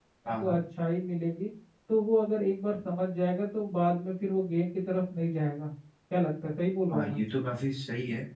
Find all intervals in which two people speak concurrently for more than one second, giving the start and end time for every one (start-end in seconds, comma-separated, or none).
none